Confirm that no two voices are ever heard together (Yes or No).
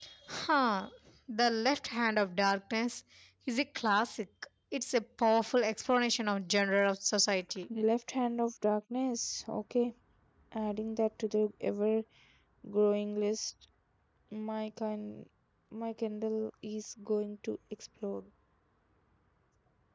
Yes